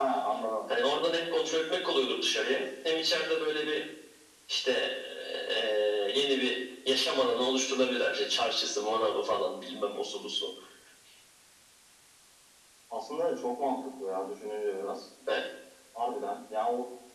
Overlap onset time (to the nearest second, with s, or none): none